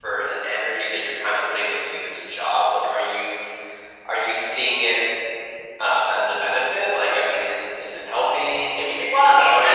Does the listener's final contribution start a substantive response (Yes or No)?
Yes